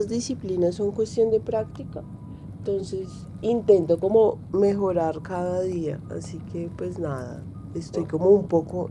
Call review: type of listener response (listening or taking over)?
listening